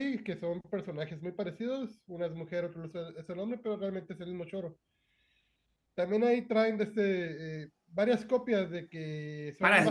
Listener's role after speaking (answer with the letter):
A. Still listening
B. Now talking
B